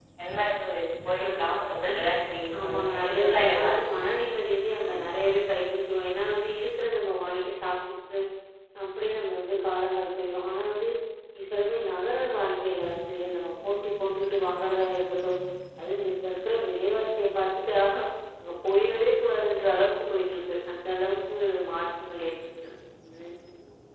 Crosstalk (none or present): present